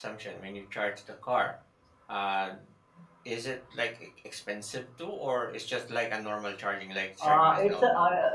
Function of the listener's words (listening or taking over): taking over